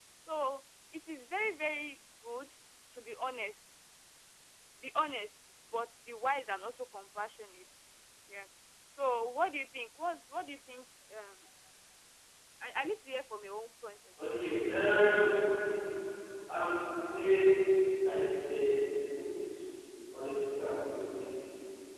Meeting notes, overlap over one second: none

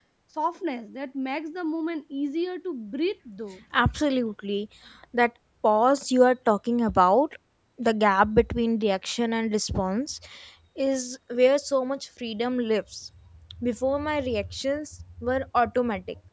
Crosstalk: none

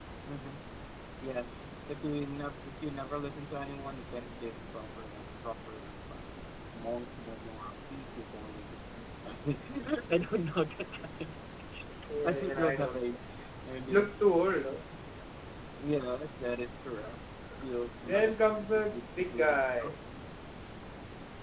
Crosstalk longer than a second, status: present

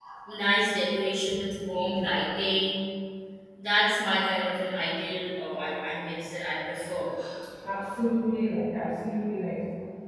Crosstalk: none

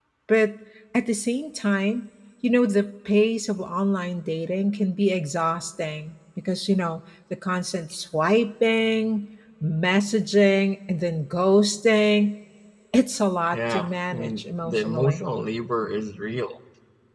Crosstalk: present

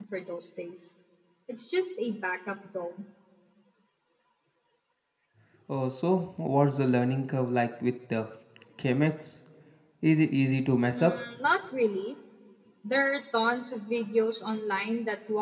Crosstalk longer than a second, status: none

